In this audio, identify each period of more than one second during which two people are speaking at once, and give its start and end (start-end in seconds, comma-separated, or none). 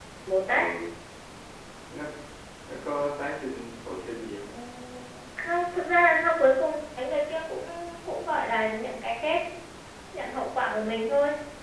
none